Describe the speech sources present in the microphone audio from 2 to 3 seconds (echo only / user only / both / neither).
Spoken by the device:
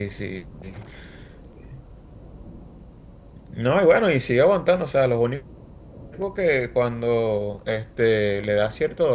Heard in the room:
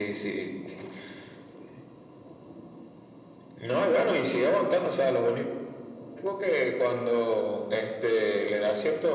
neither